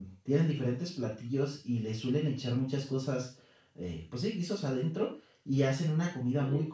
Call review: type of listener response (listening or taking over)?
listening